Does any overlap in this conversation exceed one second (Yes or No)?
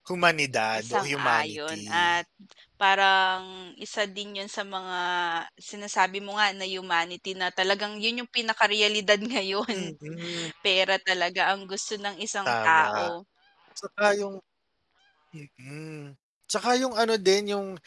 Yes